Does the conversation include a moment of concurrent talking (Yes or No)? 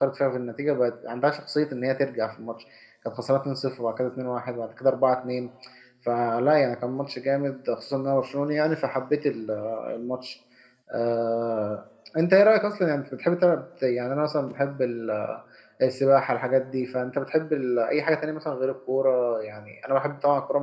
No